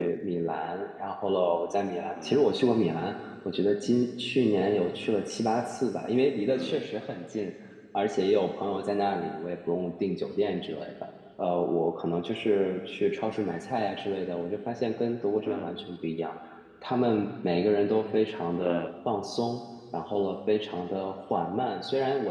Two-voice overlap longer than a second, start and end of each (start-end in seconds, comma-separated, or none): none